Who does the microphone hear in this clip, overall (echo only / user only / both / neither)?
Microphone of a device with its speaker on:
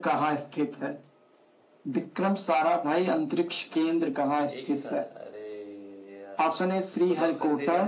both